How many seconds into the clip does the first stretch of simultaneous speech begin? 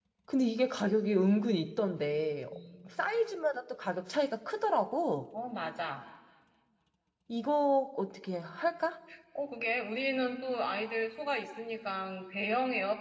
none

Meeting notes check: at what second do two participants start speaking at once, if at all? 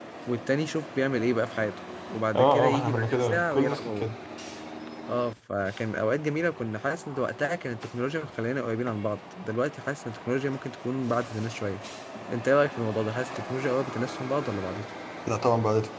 2 s

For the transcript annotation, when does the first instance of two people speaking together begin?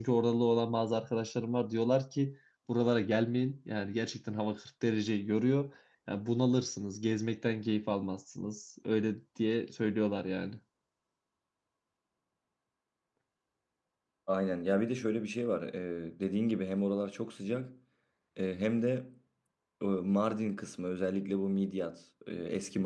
none

